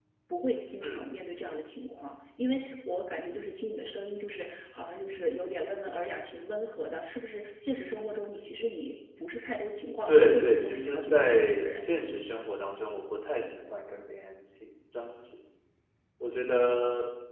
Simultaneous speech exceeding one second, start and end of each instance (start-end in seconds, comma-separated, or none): 10.1-11.9